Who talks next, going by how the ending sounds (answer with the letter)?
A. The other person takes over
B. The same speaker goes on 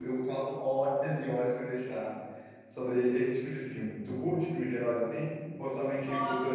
A